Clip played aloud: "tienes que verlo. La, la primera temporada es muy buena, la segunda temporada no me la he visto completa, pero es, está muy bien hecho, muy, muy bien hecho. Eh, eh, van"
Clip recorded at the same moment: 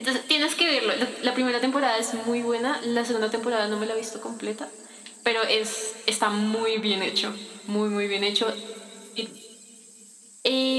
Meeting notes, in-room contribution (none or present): none